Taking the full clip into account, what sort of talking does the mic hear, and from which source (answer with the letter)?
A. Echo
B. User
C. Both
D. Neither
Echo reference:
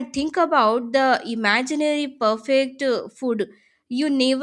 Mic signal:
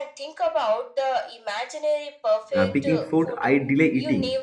C